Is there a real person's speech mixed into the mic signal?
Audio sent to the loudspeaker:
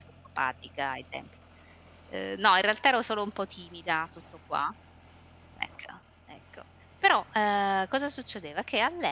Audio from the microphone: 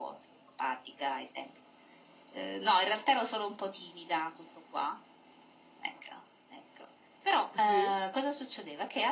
Yes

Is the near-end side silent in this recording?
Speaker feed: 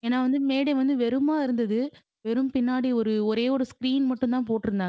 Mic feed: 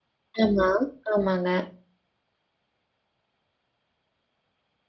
No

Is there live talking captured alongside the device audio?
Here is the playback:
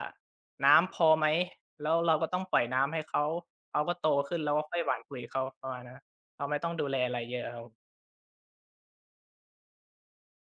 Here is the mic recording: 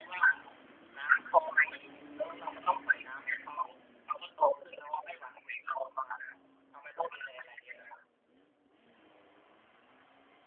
No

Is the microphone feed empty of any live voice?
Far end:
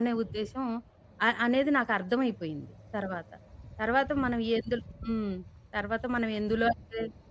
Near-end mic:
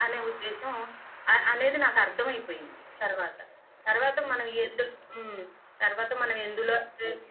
Yes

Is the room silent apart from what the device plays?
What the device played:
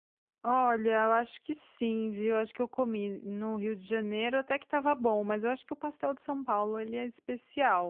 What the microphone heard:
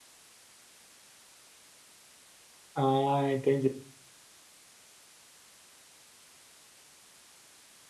No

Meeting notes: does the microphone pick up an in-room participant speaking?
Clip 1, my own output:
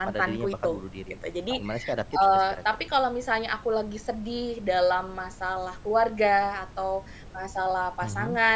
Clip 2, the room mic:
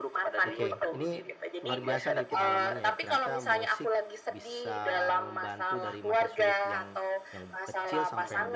Yes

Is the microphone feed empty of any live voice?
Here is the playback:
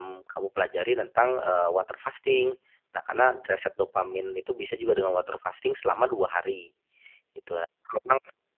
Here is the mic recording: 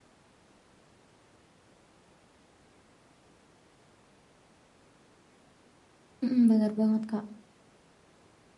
No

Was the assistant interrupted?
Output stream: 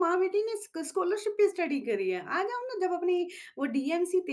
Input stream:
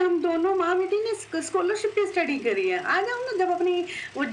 No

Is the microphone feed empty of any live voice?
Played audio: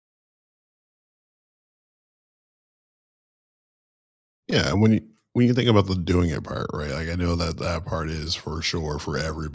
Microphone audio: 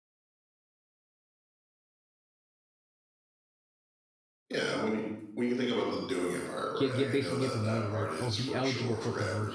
No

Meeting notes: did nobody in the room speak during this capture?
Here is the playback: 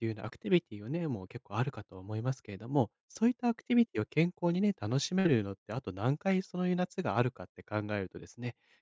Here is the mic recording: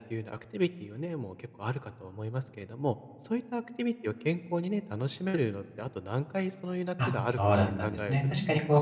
No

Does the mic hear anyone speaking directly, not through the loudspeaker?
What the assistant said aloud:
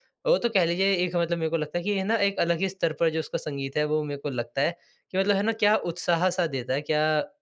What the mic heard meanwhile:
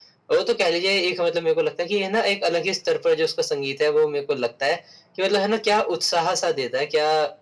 No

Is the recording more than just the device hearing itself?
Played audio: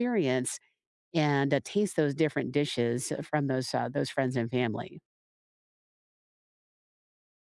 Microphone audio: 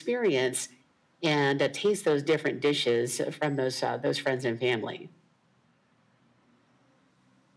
No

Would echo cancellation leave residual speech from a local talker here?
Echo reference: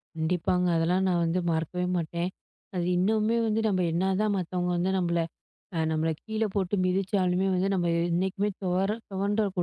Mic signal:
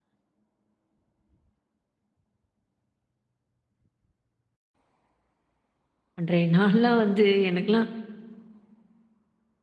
Yes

